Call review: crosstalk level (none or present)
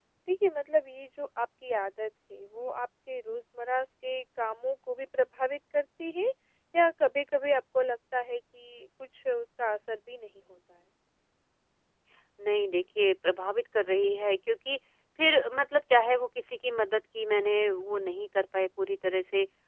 none